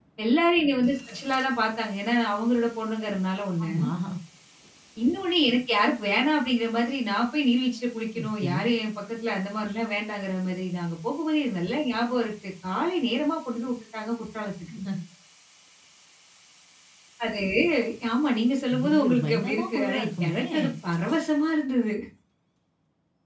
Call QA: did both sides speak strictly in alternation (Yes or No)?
No